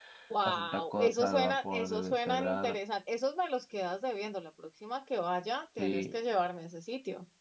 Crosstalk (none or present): present